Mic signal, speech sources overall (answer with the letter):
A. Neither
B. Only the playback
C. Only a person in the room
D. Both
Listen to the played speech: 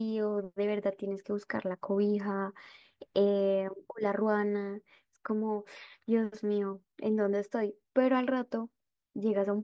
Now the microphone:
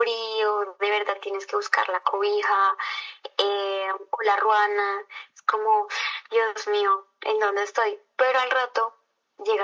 B